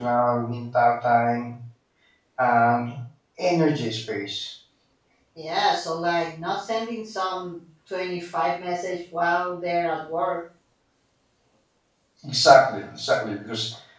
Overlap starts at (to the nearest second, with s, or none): none